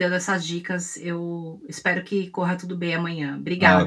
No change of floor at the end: No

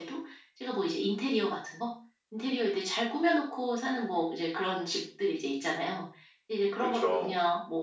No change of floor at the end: Yes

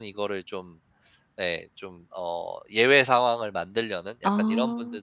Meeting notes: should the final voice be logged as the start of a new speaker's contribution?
No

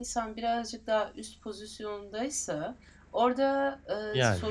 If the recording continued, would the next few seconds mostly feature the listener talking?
No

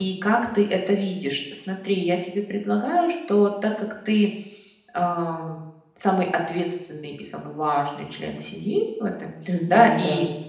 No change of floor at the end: Yes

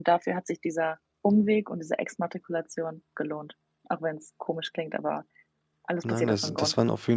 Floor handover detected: Yes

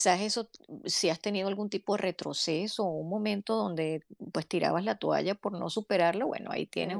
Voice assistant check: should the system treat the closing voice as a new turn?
No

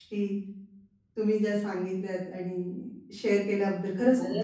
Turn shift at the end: Yes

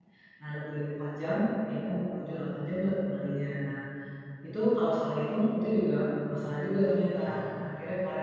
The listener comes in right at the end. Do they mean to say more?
No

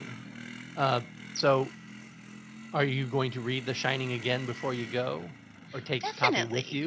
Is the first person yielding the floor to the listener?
Yes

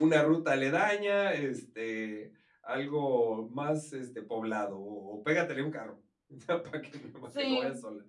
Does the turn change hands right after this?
Yes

